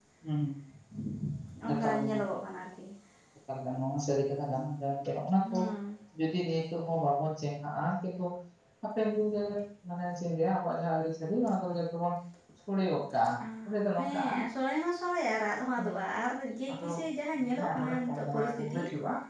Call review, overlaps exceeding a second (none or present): present